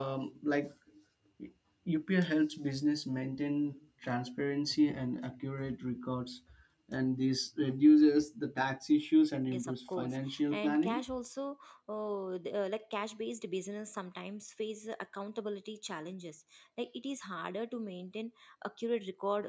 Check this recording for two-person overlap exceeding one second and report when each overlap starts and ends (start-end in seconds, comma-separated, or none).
9.5-11.0